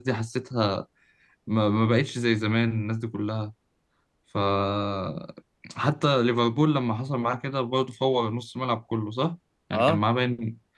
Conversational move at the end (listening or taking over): listening